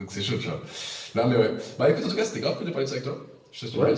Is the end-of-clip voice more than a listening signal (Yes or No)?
Yes